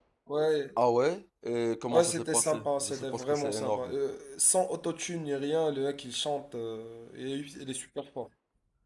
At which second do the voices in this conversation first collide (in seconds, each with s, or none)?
1.9 s